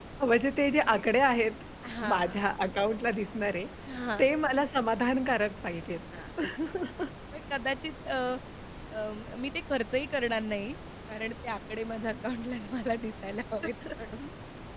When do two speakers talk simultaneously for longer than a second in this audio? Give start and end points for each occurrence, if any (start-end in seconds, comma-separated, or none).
none